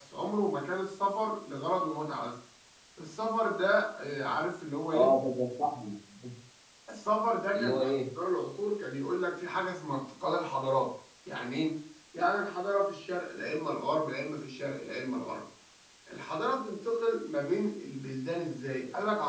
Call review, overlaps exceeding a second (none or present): none